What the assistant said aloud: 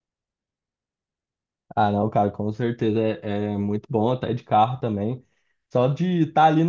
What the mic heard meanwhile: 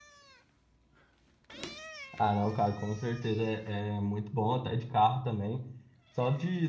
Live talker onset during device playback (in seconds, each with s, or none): none